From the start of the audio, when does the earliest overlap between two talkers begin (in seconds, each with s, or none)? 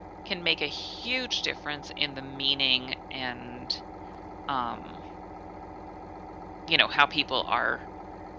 none